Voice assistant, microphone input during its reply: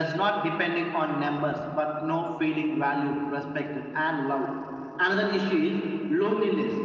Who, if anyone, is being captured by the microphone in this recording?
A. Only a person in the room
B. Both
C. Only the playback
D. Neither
C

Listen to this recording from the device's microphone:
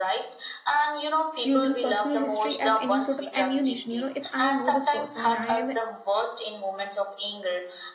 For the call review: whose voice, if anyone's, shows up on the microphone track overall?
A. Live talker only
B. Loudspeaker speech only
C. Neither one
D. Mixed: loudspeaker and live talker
D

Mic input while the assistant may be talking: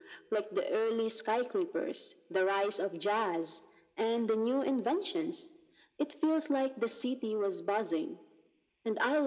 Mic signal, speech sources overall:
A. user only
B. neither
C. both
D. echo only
D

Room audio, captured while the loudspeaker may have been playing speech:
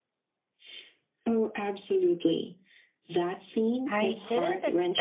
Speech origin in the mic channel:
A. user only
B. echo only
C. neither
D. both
D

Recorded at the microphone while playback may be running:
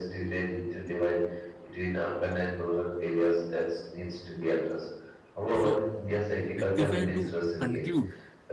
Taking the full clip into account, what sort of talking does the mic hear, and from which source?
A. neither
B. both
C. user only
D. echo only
B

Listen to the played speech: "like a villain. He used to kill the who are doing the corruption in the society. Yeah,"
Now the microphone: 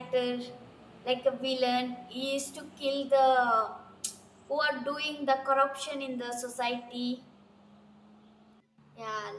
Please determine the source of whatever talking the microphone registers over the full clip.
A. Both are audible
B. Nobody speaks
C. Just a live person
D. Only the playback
D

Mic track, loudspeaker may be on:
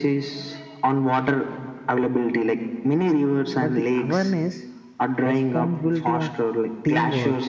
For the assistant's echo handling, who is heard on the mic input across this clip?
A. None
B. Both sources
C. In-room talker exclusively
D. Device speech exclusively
B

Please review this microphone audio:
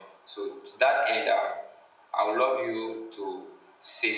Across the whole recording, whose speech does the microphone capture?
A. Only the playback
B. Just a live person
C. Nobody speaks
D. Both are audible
A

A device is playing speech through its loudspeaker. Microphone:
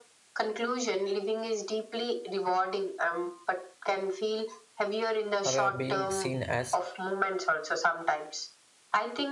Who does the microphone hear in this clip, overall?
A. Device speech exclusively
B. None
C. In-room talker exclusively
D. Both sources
D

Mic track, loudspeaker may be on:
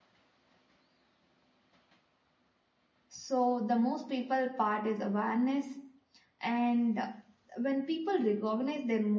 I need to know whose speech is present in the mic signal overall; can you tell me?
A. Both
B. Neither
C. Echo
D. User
D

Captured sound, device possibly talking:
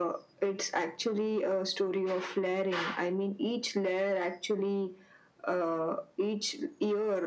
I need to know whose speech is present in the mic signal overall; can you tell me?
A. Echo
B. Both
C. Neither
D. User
A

